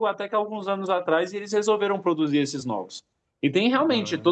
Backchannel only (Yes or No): Yes